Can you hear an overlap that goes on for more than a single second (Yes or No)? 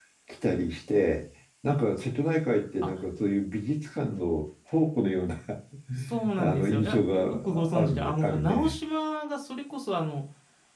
Yes